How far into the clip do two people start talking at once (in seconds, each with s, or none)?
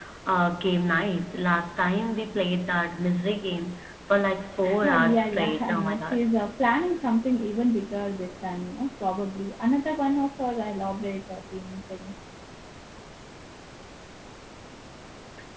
4.6 s